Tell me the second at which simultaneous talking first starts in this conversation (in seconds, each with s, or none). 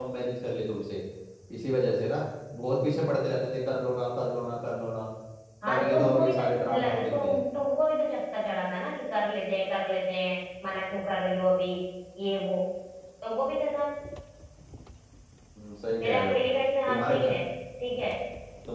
5.7 s